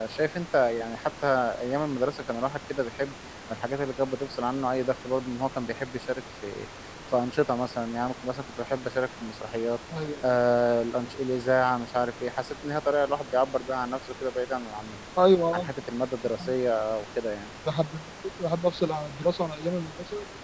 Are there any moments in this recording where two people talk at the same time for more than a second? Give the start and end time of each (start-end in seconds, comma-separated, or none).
none